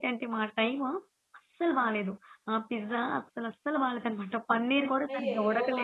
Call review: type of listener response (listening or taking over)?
taking over